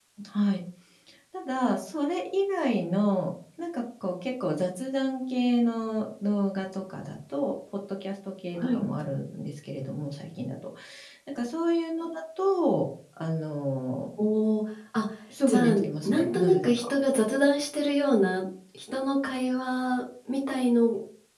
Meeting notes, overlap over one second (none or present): present